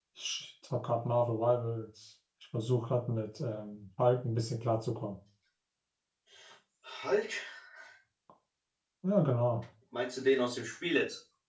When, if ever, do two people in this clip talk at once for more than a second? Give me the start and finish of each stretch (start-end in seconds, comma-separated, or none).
none